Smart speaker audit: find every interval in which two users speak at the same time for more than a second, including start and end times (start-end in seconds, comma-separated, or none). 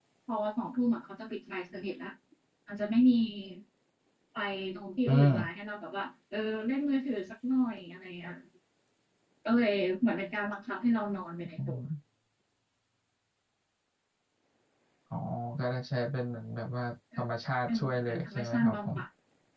17.7-19.0